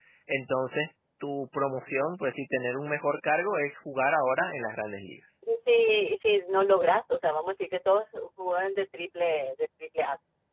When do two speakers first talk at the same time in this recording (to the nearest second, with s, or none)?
none